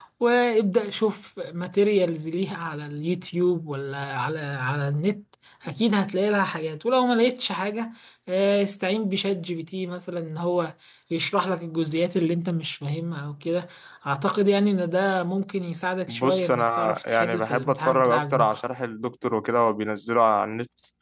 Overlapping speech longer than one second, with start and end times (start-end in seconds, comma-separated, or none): 16.1-18.6